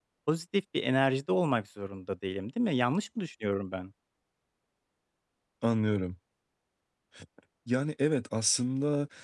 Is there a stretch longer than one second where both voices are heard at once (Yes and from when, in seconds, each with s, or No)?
No